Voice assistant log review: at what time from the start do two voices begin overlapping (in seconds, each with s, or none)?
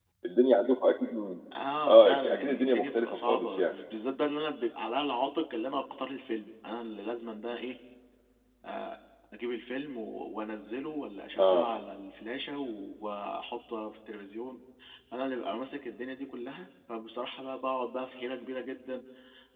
1.9 s